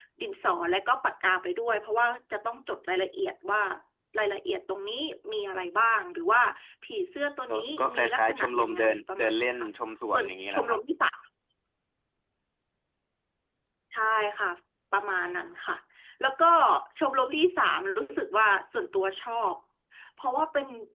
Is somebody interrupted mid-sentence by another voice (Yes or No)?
Yes